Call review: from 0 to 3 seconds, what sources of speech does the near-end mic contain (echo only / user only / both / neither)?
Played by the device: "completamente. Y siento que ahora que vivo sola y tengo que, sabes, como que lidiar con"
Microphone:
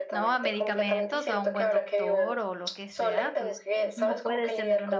both